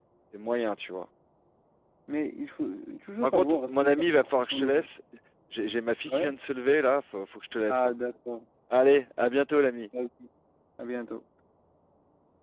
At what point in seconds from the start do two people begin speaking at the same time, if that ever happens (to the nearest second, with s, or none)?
3 s